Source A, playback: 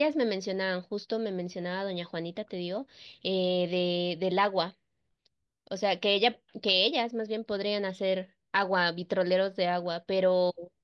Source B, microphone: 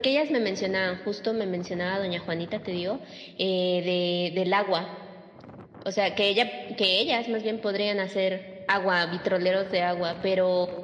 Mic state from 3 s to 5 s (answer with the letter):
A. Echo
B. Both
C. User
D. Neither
A